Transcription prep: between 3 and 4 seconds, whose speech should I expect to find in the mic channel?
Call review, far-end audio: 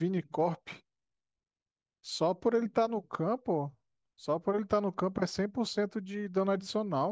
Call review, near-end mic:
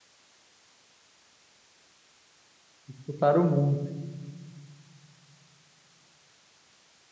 user only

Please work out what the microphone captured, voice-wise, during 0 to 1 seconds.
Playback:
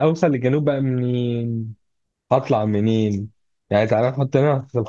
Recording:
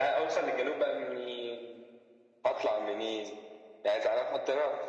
echo only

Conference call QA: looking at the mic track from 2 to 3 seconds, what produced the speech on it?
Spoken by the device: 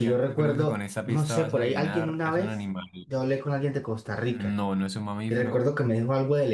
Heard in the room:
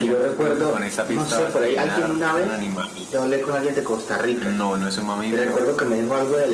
echo only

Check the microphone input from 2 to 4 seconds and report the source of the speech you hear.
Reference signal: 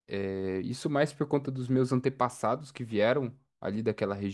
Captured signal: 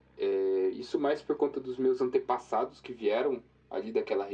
echo only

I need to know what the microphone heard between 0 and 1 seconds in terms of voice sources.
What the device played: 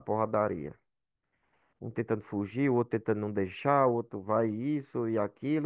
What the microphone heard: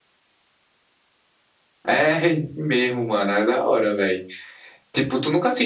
neither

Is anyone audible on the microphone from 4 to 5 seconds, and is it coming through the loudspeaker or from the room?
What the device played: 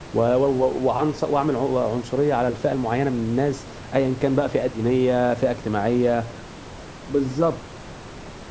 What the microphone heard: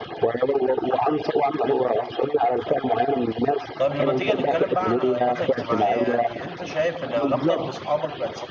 both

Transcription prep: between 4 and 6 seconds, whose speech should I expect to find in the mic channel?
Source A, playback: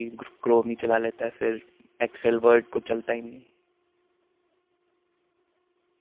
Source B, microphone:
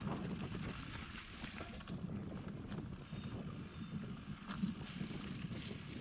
neither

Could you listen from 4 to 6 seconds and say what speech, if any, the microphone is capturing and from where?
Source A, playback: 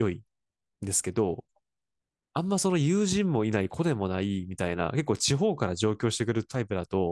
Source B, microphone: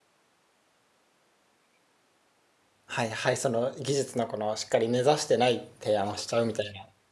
user only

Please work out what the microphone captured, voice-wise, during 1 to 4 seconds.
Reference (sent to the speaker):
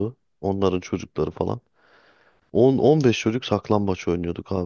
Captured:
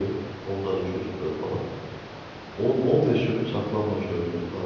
echo only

